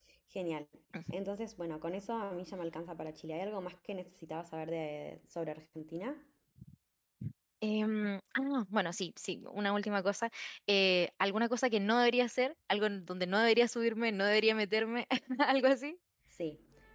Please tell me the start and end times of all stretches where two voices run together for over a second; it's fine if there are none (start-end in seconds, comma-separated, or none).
none